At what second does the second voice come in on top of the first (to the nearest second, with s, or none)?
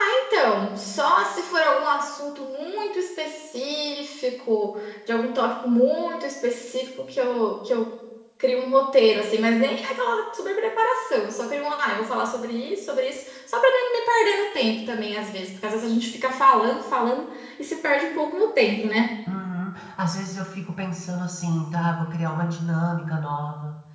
none